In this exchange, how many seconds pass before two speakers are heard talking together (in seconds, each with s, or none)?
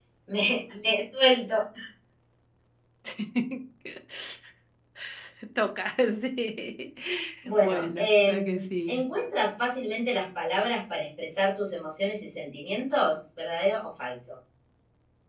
7.6 s